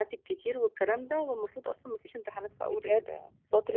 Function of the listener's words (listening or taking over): taking over